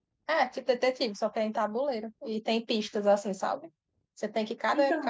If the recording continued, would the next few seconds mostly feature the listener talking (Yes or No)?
No